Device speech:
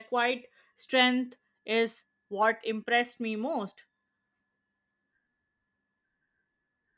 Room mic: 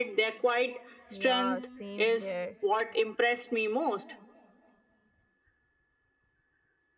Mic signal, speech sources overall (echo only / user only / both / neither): both